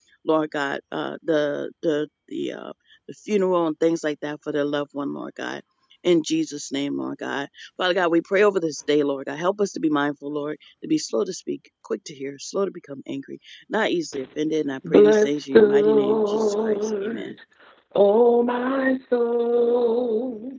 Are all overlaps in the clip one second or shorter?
No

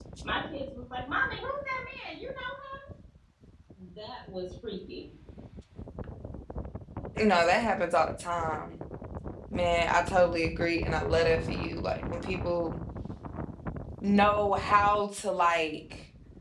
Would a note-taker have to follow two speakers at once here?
No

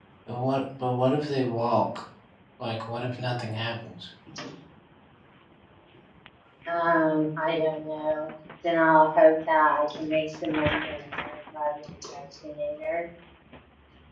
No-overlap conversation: Yes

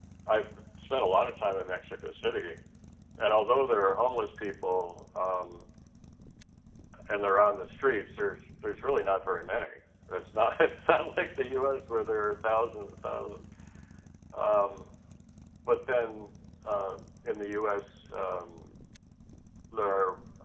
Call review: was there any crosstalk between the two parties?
No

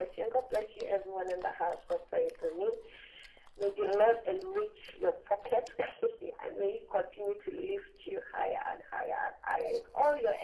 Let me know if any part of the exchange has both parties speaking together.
No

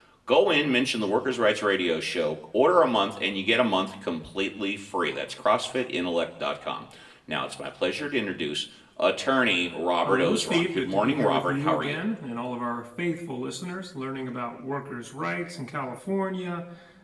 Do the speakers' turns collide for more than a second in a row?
Yes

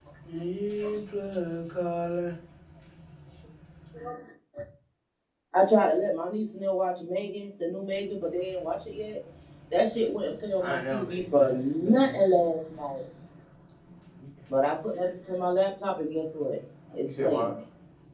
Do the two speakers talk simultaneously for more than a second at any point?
Yes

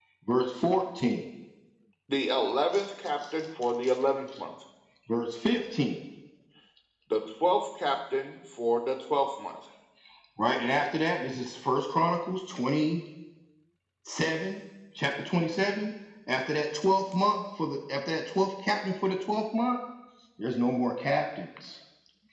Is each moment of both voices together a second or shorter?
Yes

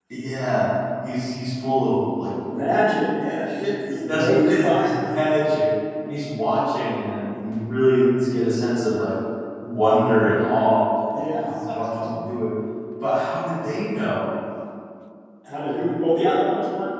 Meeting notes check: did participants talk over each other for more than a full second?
Yes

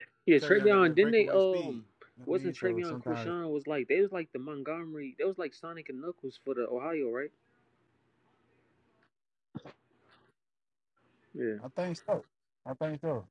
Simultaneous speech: Yes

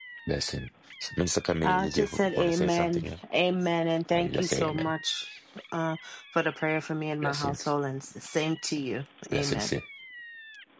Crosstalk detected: Yes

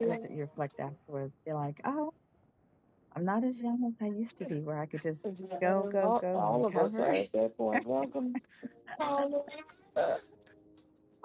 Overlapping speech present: Yes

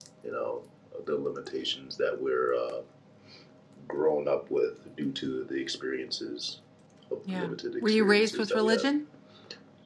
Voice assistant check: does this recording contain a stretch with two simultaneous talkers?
Yes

